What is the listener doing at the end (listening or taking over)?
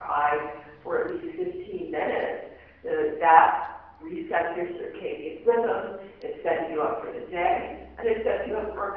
listening